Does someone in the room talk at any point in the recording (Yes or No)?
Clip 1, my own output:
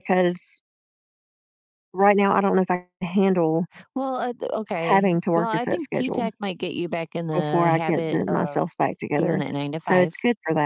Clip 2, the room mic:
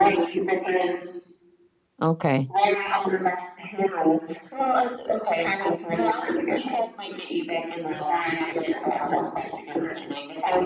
Yes